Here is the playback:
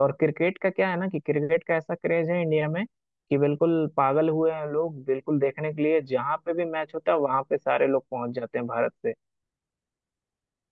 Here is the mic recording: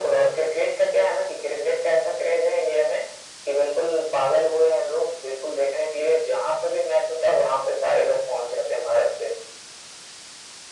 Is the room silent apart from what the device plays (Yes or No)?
Yes